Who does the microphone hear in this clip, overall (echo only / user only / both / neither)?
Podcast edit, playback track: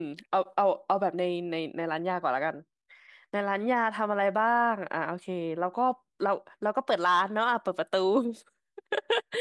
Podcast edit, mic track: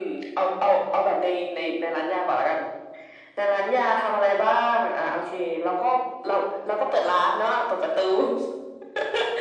echo only